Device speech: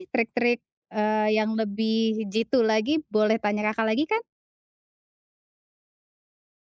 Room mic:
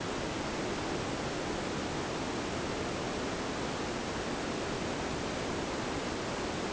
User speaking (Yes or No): No